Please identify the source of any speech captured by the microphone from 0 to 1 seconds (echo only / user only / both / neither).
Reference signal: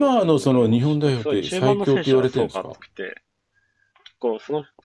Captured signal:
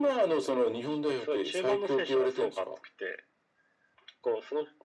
echo only